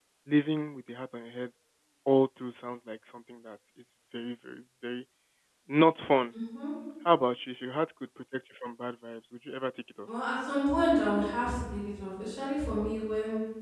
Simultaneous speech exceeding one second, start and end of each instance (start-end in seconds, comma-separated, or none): none